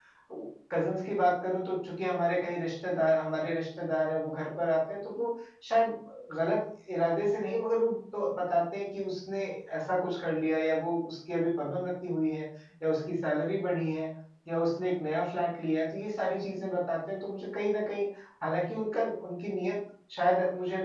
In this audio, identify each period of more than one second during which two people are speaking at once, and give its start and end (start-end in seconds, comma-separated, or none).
none